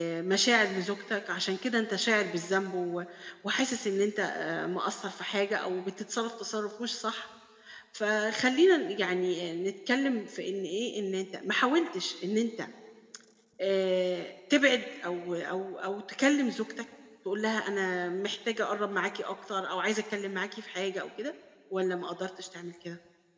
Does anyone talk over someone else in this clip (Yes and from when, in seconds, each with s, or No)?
No